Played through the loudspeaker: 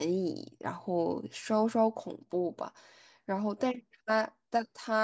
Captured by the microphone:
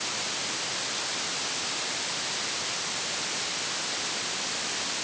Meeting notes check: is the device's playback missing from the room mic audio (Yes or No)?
Yes